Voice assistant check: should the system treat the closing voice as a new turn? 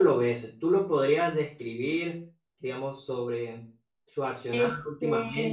No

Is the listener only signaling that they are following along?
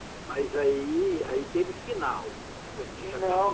No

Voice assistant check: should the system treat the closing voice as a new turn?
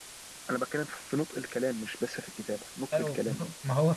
Yes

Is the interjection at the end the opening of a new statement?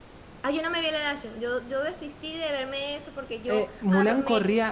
Yes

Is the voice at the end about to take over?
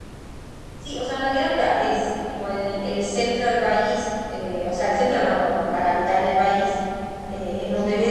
No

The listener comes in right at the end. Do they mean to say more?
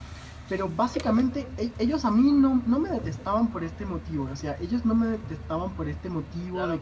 Yes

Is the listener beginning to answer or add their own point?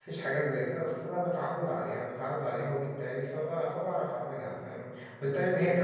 No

